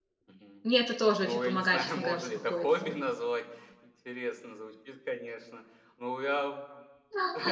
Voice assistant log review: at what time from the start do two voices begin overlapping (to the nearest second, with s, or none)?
1 s